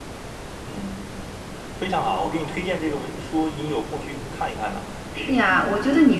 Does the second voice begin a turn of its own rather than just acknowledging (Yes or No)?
Yes